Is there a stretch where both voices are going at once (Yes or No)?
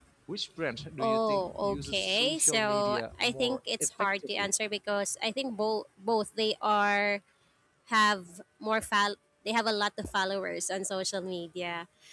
Yes